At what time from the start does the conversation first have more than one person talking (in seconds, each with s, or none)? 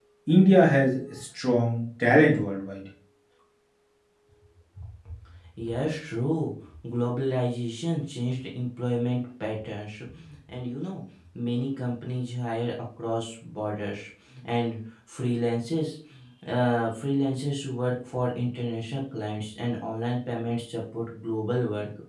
none